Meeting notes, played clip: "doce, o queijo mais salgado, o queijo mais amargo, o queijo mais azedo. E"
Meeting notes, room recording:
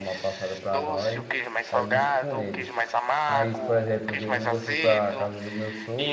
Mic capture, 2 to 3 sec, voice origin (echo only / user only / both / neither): both